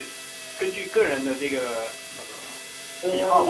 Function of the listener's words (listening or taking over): taking over